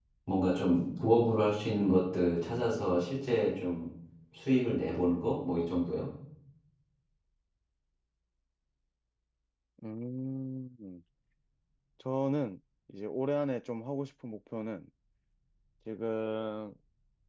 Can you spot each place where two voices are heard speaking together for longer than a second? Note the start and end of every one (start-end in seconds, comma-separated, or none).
none